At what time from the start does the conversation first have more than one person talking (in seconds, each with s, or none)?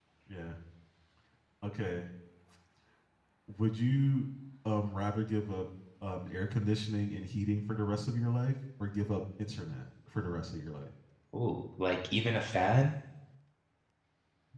none